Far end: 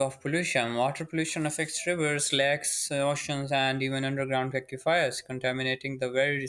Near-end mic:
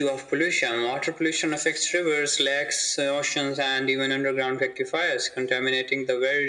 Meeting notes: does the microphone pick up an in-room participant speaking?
No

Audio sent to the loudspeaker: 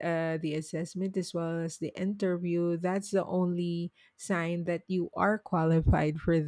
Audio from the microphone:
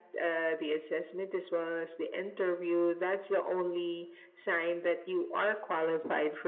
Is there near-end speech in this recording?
No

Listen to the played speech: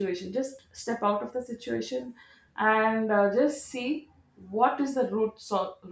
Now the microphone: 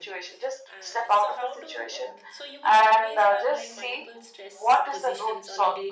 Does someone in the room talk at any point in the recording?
Yes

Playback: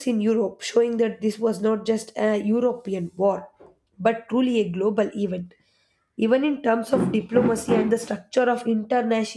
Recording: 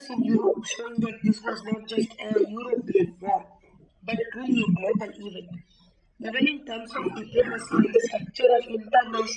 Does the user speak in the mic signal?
No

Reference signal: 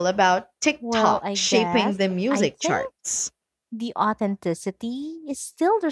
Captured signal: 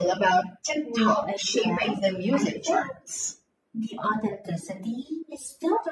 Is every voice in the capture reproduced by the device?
Yes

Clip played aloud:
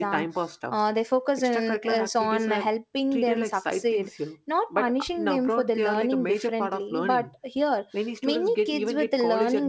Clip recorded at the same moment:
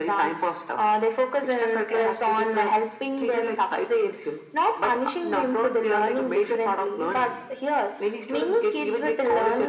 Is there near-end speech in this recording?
No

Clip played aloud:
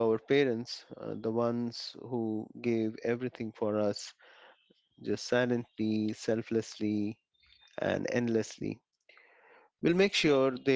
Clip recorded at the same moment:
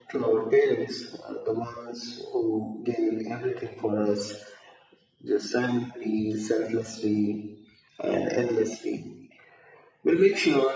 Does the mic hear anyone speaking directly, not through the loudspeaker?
No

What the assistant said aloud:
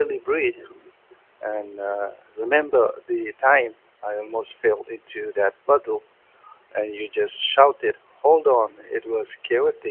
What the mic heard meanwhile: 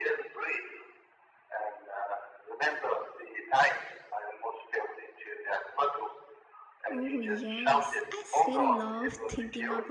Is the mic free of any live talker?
No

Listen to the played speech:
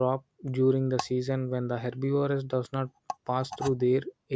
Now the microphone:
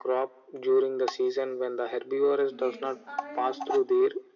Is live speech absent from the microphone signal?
No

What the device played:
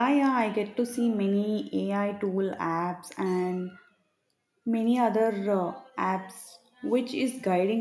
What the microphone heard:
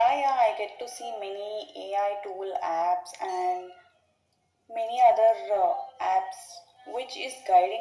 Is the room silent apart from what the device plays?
Yes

